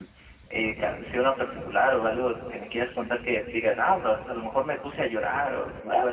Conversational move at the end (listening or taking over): taking over